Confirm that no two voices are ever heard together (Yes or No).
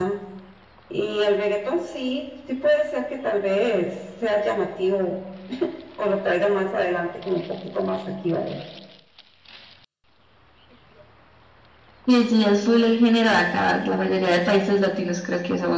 Yes